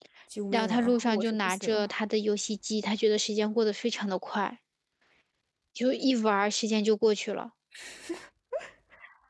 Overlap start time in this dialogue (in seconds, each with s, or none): 0.5 s